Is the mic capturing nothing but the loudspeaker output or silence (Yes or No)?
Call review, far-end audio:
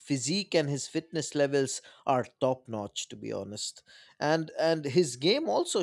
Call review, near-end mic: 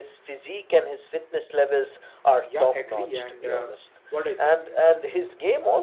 No